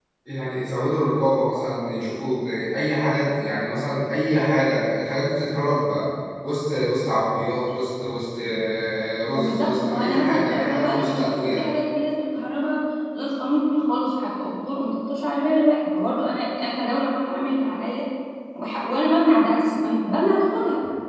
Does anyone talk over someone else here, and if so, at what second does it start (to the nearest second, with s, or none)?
9 s